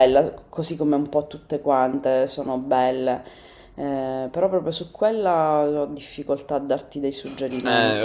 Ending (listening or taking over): taking over